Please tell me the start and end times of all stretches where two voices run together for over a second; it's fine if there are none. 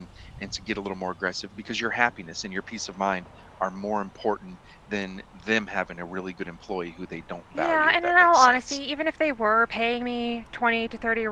7.6-8.8

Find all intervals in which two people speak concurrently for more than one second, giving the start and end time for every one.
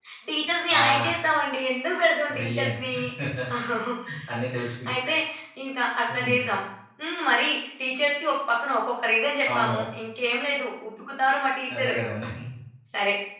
none

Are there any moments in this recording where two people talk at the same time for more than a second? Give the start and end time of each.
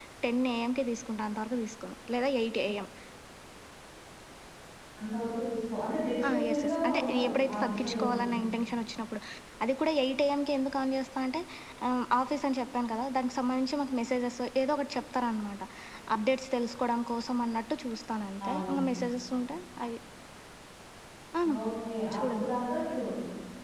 6.3-8.2

